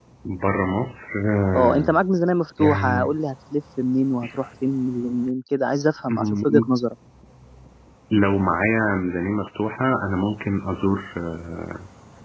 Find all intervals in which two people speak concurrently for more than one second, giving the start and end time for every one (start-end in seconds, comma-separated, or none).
none